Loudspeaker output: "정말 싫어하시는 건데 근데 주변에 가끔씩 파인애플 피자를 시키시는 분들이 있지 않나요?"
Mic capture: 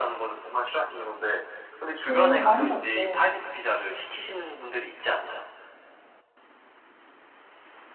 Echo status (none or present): present